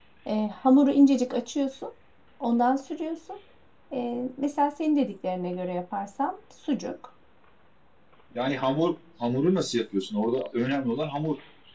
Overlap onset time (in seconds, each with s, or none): none